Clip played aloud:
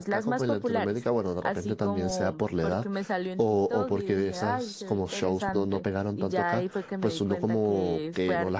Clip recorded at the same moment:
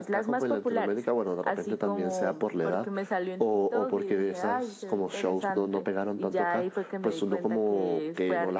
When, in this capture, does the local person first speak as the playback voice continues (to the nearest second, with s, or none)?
none